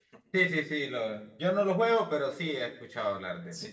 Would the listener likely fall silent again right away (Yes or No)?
No